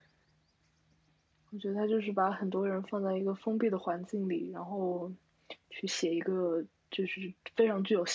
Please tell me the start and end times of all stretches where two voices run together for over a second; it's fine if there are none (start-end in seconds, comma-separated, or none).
none